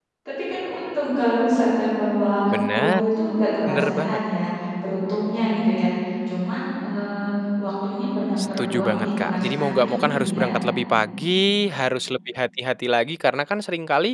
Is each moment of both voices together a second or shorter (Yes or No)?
No